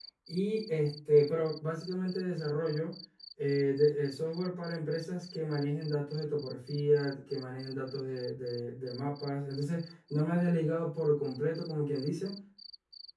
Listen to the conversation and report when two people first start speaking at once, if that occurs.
none

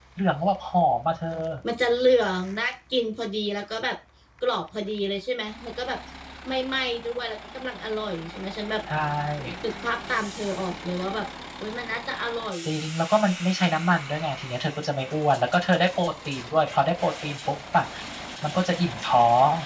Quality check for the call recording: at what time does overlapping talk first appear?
none

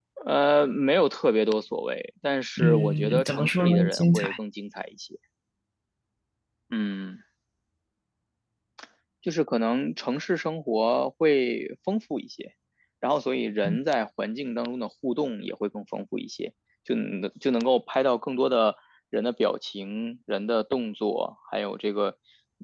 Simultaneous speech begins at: 3 s

